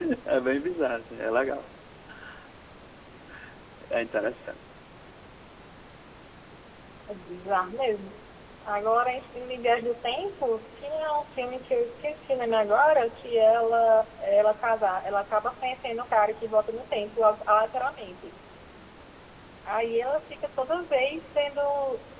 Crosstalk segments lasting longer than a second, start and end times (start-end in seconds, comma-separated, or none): none